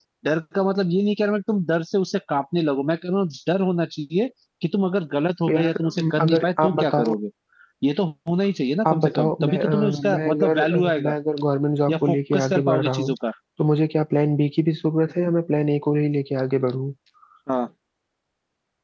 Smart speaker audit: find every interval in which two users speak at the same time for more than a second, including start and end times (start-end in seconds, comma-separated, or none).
5.5-7.2, 8.8-11.1, 11.9-13.1